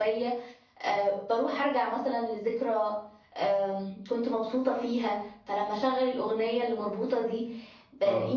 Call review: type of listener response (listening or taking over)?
listening